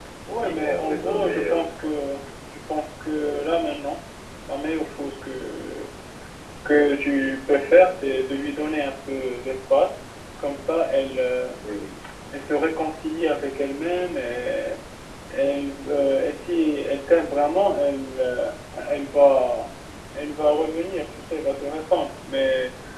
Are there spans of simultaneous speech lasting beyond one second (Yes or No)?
Yes